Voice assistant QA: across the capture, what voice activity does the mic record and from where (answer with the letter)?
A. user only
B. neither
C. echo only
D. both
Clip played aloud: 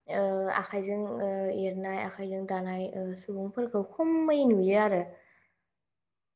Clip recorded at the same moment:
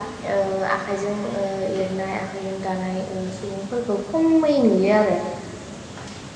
C